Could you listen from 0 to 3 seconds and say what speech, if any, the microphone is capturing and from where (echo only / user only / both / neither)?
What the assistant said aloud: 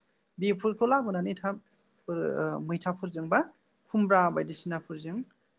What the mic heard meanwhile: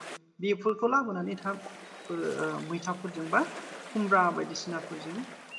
echo only